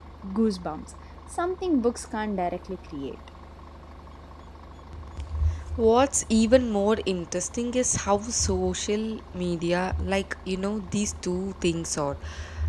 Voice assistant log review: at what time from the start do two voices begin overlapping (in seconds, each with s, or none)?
none